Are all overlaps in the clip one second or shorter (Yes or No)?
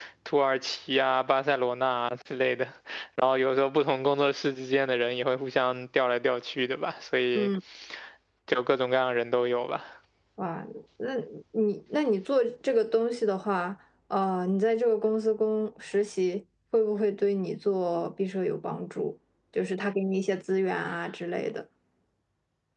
Yes